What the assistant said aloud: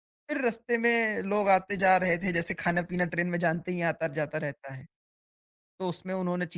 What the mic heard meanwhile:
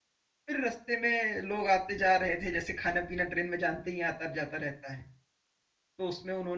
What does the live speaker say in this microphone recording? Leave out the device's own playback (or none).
none